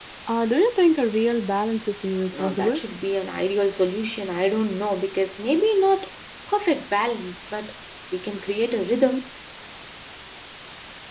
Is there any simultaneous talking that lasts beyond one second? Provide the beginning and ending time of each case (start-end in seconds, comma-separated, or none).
none